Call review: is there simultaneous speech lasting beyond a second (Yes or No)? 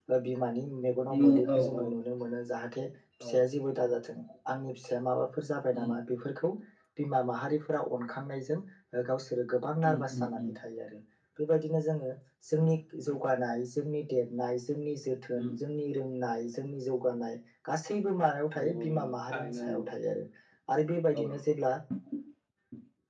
Yes